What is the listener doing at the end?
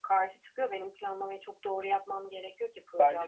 taking over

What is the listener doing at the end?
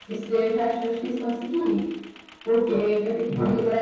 listening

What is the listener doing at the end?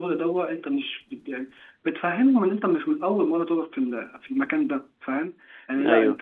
listening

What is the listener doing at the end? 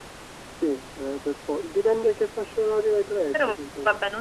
taking over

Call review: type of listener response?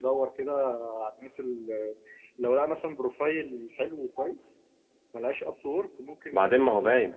taking over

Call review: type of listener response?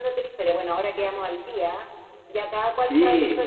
listening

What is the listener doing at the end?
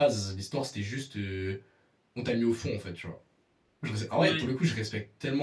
listening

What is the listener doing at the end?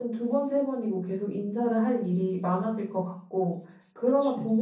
listening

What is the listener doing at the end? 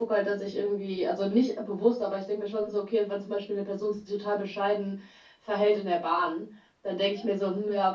listening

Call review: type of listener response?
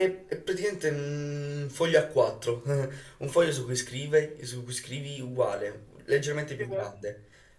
listening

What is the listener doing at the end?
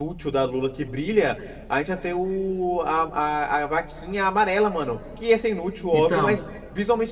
listening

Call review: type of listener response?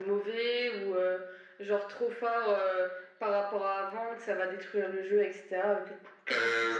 taking over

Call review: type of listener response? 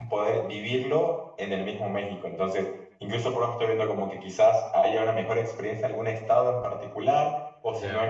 listening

